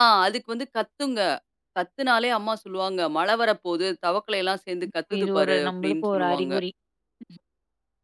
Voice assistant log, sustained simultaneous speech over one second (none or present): present